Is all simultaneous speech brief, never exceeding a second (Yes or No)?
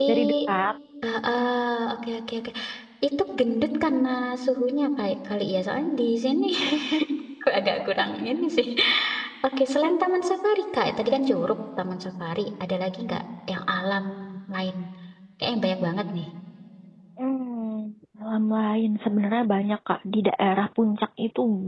Yes